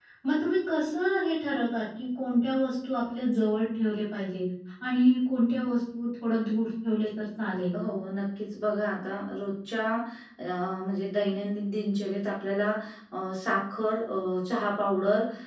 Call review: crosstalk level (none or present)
none